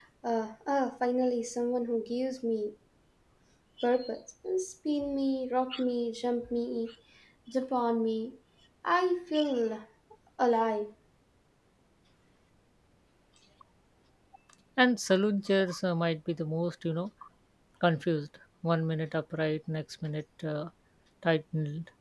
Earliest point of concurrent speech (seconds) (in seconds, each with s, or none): none